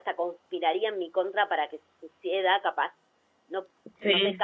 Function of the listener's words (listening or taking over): listening